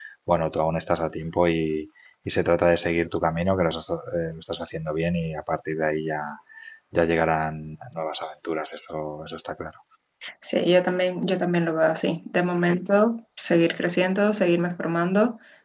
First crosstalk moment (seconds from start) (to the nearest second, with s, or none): none